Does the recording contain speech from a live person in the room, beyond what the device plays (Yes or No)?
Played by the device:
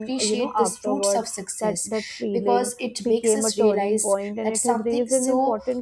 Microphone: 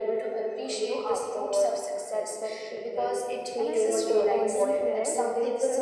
Yes